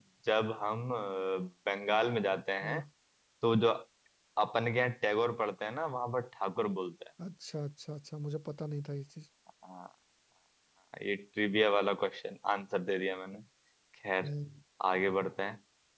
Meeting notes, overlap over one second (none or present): none